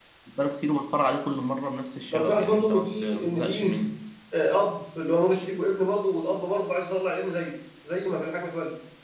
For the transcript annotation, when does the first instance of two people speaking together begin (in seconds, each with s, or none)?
2.1 s